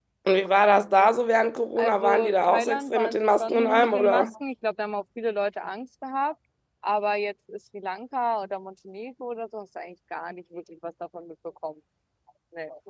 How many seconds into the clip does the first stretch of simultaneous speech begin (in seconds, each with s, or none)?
1.8 s